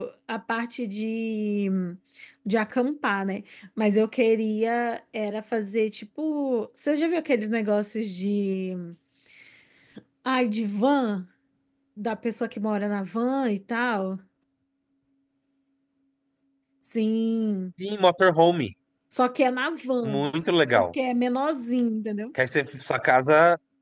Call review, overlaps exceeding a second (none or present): none